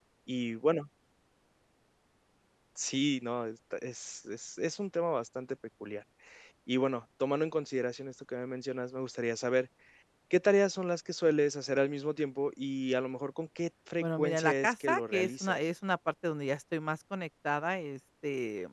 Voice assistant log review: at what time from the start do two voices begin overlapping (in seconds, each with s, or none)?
14.0 s